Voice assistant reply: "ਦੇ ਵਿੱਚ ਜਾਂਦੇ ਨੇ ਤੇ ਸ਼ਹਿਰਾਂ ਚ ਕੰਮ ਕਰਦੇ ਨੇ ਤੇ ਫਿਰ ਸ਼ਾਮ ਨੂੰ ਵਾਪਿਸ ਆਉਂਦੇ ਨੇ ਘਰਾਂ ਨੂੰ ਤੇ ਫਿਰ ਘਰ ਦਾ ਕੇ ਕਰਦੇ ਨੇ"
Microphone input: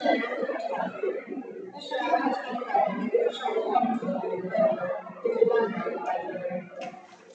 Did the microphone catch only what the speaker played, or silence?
Yes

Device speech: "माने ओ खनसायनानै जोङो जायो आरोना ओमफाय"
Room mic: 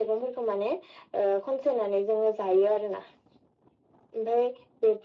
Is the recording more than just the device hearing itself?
No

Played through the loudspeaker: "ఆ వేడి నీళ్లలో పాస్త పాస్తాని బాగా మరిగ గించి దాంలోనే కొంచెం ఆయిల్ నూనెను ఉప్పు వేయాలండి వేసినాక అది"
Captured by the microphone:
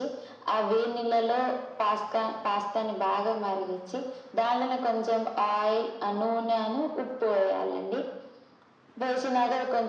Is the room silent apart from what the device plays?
Yes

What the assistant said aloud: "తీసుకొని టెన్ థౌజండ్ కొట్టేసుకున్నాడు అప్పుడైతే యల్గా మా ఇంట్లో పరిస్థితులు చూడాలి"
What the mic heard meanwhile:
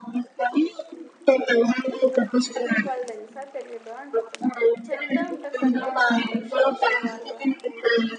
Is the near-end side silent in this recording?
No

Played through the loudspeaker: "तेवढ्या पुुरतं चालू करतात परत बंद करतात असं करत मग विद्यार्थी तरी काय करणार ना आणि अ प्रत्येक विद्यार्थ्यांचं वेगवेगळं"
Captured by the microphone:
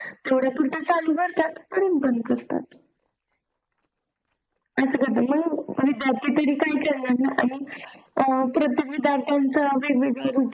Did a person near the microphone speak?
No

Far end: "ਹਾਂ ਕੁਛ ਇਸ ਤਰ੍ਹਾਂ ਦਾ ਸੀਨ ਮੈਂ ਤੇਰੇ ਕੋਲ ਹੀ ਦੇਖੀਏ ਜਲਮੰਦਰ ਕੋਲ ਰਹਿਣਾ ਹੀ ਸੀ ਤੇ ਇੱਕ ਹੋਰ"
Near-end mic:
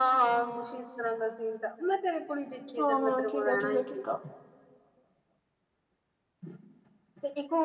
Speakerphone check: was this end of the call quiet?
No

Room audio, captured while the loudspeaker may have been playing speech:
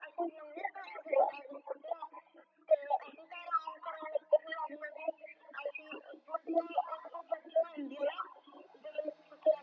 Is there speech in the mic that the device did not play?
No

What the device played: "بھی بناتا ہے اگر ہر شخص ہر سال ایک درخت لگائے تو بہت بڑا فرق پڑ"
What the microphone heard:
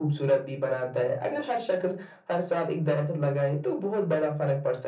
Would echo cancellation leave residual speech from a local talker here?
No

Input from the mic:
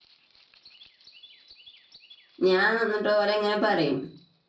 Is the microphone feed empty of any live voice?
No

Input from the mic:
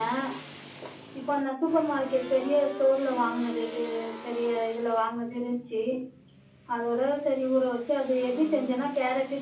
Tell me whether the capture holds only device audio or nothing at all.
Yes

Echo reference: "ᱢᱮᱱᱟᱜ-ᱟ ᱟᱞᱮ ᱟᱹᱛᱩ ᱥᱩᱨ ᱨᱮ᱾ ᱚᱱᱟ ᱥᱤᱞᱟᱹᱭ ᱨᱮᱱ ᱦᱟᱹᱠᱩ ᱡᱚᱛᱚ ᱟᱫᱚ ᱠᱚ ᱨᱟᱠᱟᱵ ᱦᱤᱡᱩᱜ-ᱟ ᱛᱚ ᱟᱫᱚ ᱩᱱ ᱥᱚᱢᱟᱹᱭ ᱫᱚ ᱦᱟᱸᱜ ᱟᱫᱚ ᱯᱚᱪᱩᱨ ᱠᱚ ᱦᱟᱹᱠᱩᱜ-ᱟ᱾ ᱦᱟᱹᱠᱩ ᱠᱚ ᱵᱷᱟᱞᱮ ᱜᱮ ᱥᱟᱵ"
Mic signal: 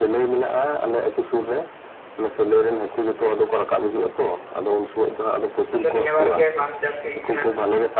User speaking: Yes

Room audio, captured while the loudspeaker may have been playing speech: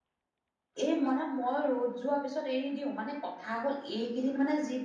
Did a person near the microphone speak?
Yes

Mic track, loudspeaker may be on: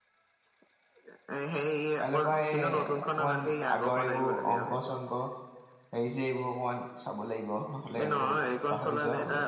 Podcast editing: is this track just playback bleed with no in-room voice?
No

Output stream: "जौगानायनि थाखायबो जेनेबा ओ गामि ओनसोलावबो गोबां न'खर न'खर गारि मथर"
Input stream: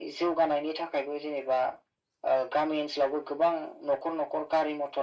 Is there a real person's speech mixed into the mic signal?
No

